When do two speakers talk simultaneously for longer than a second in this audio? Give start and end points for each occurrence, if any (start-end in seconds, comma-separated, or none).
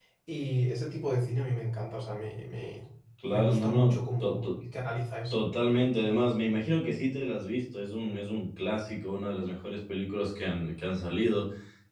3.3-4.5